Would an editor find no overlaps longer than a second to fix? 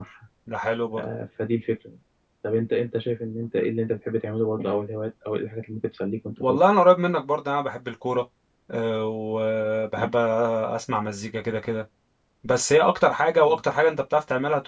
Yes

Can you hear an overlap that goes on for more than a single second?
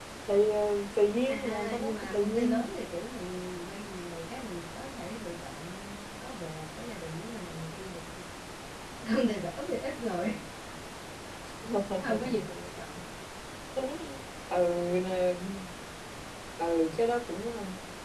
Yes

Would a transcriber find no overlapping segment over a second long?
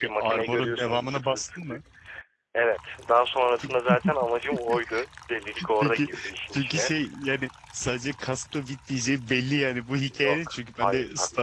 No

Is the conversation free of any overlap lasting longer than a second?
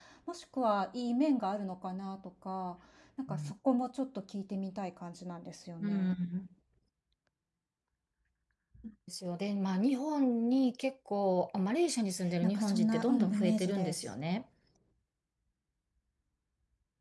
No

